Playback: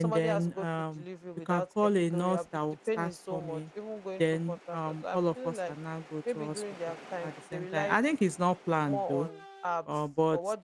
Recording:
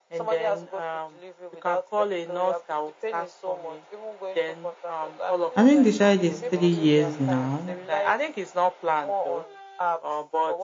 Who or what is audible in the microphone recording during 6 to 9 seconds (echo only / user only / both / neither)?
both